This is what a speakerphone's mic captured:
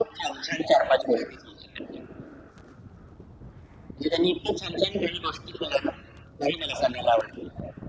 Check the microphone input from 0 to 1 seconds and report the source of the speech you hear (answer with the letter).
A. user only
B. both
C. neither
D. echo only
D